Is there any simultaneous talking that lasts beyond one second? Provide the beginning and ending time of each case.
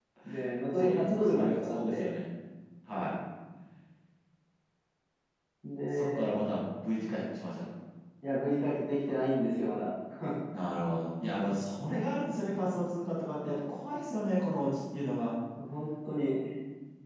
0.8-2.1

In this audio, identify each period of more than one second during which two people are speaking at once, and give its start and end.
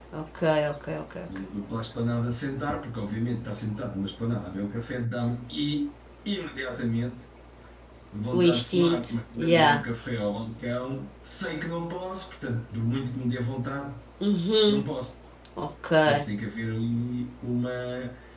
8.3-9.8

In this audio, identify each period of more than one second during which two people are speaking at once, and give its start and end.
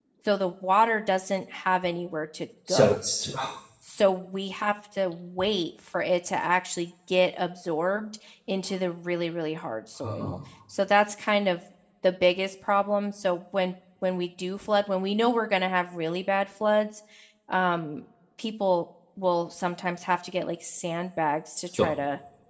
none

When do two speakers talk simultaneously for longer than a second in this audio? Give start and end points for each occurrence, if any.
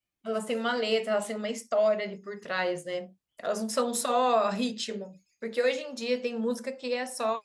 none

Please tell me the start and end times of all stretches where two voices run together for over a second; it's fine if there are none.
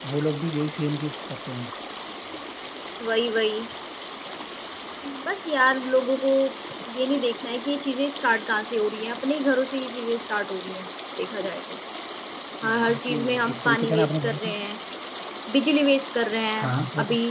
12.6-14.5

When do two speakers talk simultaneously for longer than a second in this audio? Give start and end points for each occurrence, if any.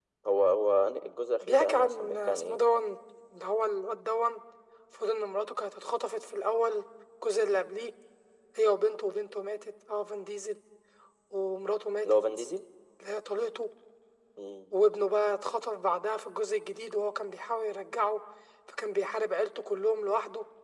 1.4-2.6

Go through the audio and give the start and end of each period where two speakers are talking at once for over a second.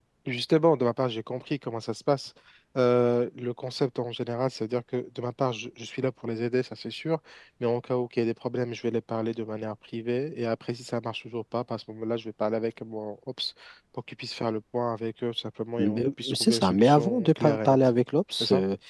15.8-17.8

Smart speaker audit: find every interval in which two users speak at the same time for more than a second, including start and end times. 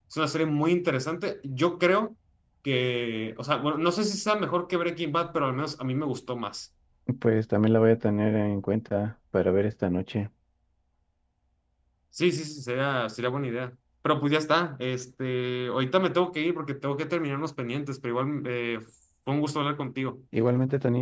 none

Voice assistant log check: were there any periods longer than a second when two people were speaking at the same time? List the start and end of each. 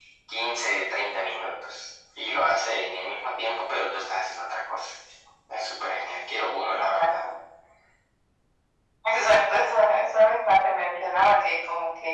none

